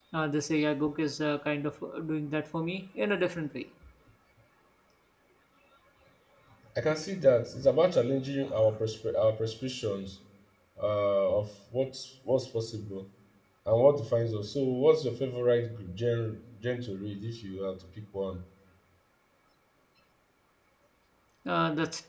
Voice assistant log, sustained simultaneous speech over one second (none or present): none